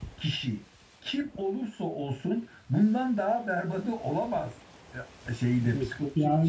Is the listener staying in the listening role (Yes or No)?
No